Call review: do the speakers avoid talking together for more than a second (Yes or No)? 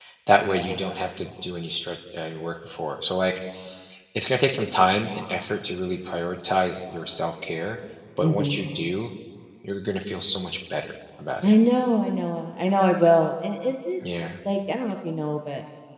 Yes